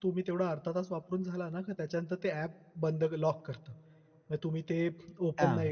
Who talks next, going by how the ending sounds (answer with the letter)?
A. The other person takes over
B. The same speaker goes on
B